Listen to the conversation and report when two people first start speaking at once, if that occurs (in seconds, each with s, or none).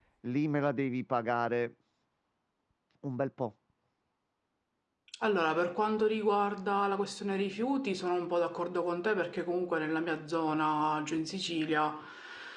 none